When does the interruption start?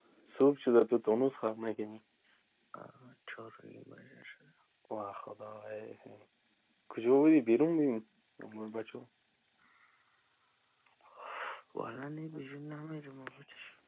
none

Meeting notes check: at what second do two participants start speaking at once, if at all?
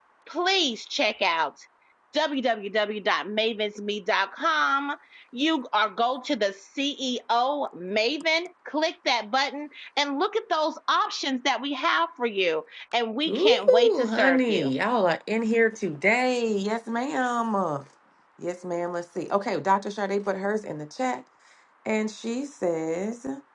13.3 s

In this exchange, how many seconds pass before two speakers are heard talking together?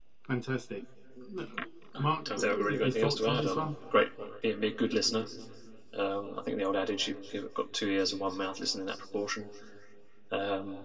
2.2 s

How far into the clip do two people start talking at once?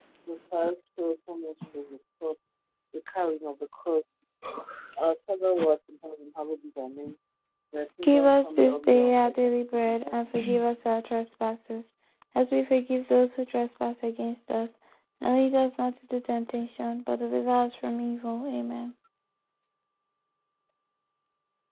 8.0 s

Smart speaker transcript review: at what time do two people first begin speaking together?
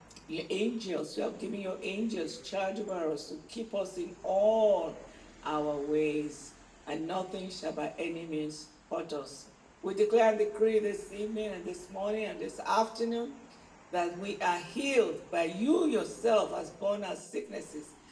none

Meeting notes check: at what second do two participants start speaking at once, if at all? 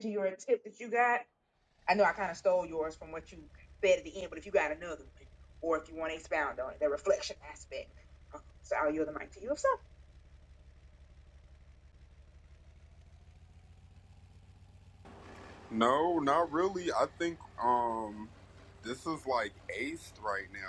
none

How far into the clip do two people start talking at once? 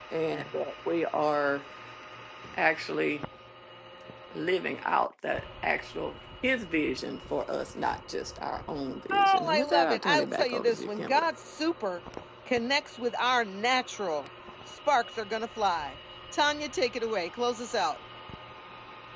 9.1 s

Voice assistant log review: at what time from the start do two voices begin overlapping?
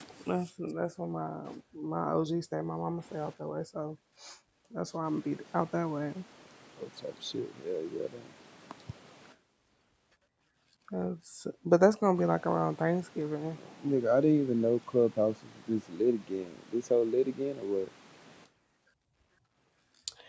none

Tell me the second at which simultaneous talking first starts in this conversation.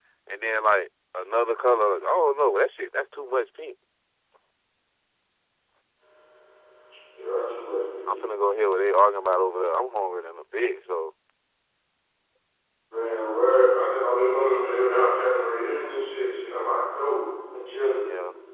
none

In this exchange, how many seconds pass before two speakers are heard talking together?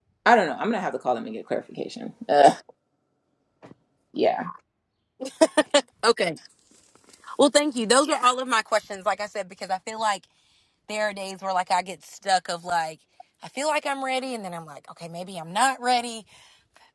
none

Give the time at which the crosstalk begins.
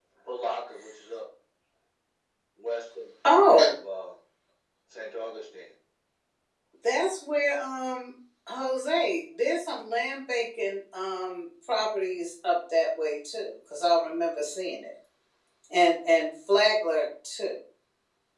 none

